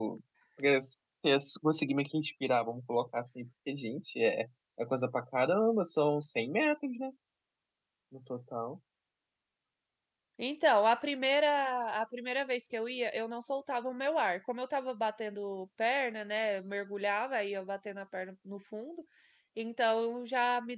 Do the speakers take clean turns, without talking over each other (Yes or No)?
Yes